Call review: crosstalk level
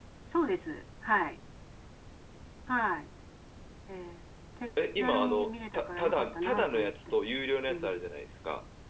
present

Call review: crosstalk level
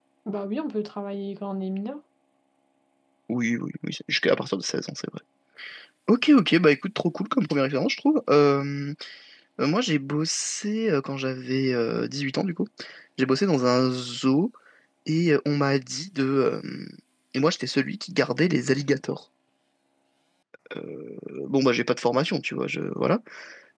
none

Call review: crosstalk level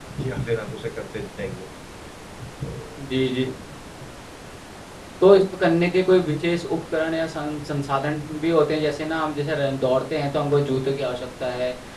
none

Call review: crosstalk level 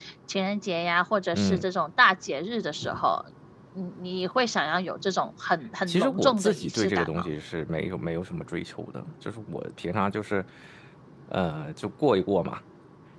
present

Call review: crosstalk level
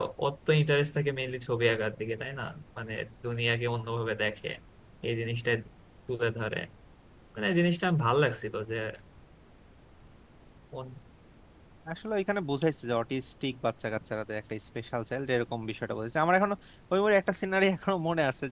none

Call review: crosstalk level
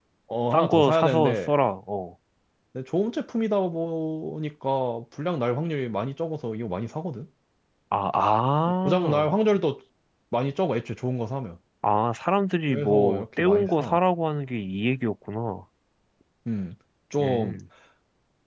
present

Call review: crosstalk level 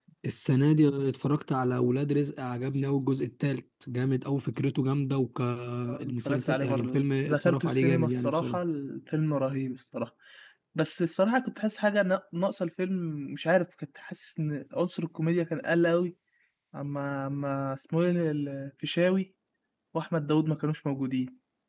present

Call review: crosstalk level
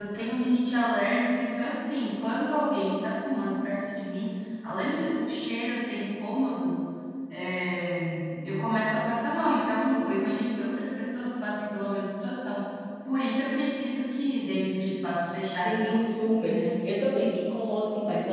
present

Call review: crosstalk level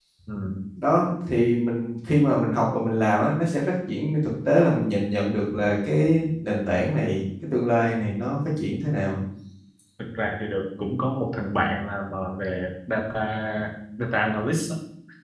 none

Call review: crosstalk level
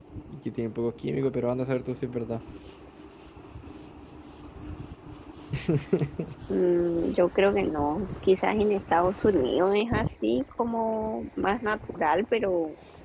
none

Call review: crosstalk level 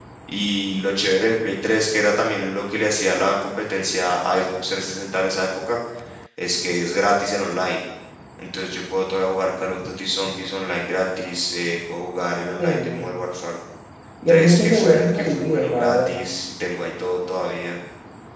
present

